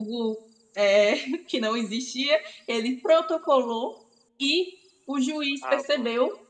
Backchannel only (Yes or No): Yes